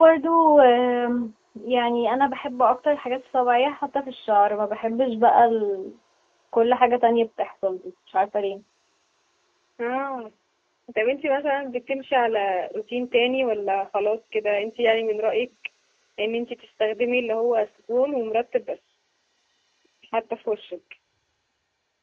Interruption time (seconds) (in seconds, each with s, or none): none